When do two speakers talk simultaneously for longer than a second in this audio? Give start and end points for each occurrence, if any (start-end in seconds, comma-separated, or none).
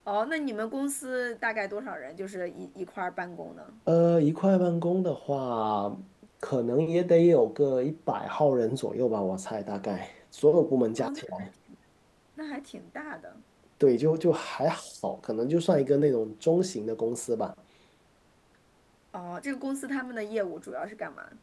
none